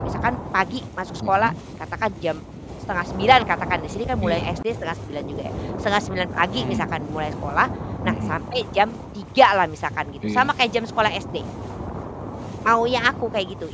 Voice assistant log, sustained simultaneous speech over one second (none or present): none